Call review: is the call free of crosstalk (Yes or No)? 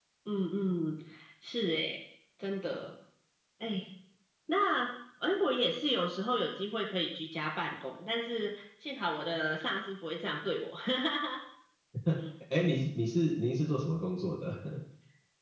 Yes